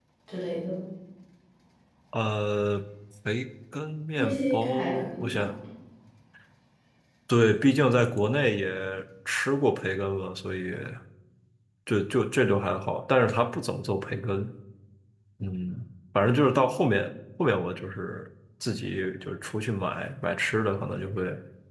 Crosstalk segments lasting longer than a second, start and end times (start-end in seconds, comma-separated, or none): 4.1-5.5